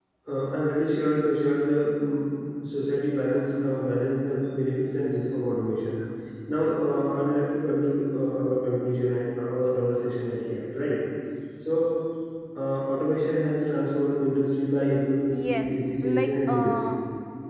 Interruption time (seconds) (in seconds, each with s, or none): 15.3 s